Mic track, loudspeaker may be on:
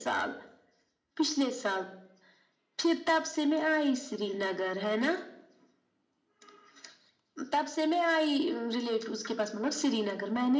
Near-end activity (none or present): none